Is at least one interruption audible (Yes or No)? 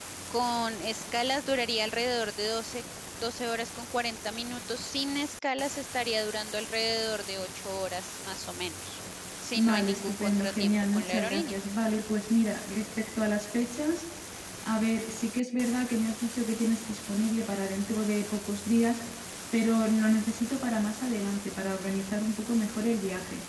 Yes